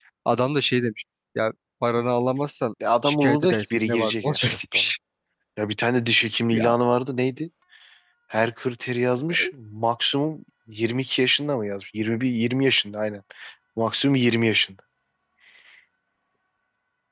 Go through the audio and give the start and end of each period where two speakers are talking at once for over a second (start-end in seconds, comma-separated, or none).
3.0-4.8